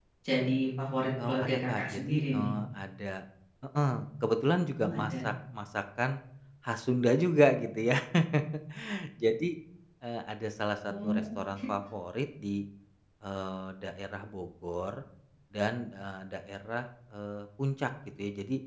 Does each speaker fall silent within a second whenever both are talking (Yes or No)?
No